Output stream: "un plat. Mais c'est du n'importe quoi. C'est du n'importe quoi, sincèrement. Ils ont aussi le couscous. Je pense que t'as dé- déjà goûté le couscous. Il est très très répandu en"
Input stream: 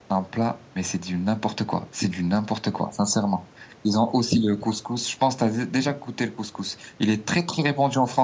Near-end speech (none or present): none